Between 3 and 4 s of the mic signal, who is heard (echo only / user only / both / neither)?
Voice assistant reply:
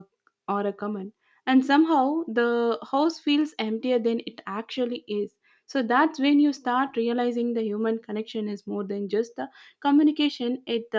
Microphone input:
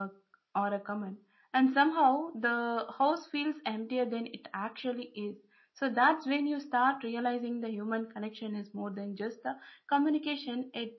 echo only